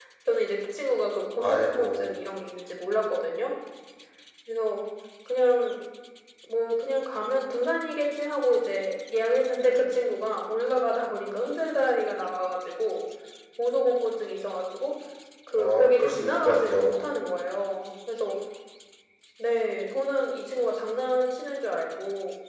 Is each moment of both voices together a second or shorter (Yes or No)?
No